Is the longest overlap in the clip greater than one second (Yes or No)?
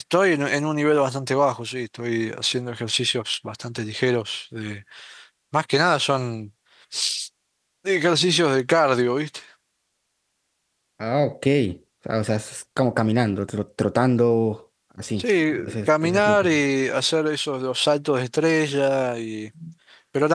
Yes